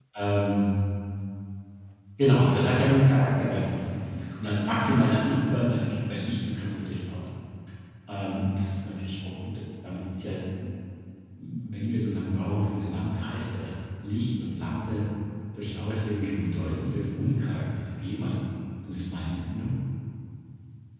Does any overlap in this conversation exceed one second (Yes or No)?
No